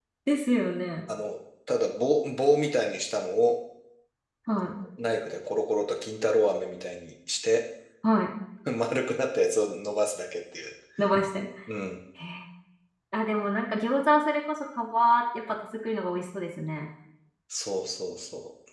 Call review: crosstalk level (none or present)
none